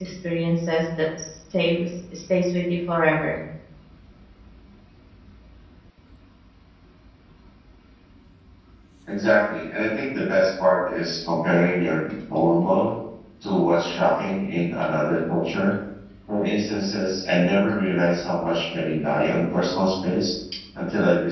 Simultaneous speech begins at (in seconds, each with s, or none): none